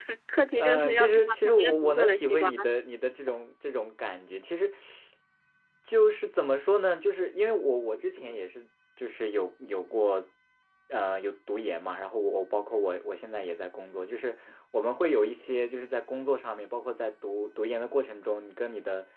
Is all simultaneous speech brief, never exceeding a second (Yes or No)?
No